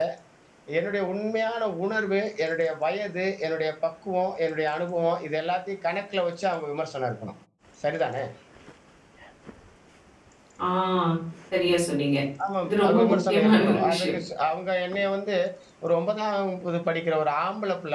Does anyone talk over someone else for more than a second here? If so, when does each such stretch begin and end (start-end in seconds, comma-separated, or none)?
12.7-14.2